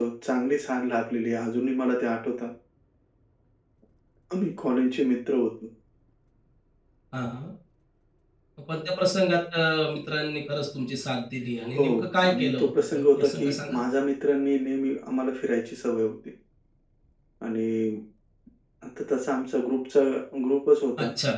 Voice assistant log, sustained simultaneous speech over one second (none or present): present